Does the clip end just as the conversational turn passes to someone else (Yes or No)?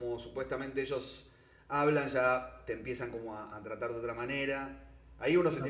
No